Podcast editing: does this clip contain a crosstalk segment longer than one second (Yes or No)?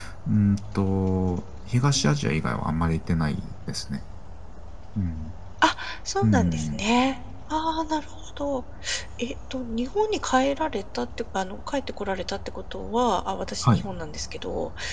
No